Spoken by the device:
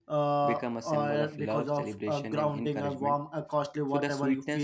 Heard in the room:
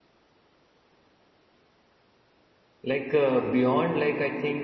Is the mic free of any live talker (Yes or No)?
No